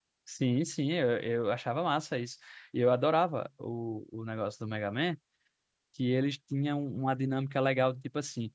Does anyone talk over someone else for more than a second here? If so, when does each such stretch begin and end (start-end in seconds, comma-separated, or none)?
none